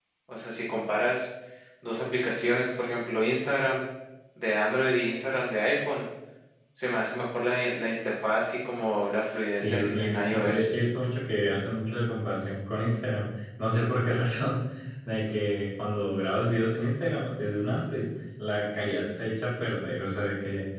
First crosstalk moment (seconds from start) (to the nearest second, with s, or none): 10 s